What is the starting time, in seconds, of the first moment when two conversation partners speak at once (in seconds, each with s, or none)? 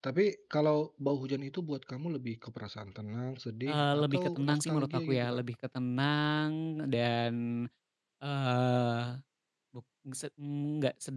3.7 s